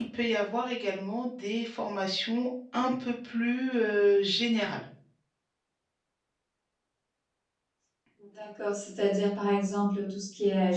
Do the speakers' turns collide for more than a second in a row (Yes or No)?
No